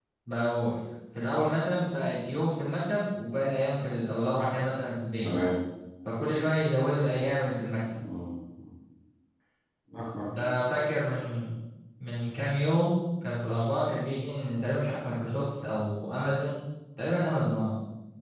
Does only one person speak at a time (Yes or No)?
Yes